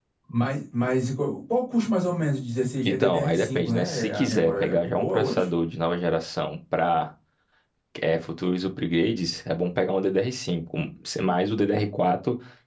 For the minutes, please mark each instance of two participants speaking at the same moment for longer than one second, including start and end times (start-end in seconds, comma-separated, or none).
2.8-5.5